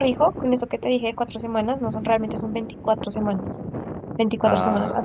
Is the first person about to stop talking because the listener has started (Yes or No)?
No